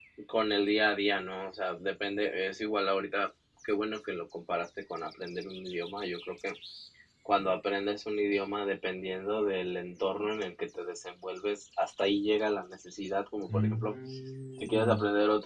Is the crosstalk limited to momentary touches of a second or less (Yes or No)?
Yes